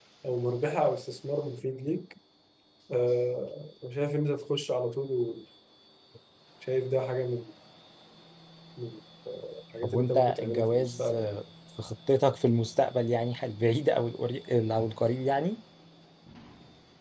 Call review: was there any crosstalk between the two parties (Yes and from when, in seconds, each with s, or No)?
Yes, from 9.8 s